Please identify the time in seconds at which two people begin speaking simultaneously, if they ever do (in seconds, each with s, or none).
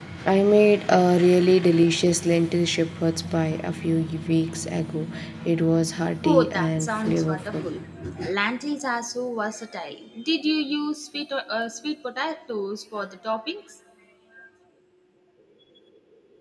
6.2 s